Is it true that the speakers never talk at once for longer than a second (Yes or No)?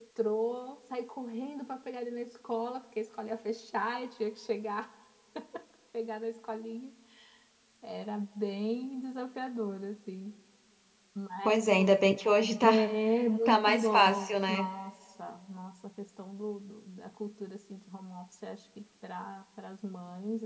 No